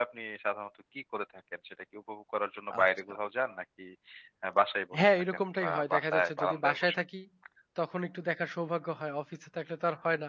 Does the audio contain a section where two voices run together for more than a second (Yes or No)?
Yes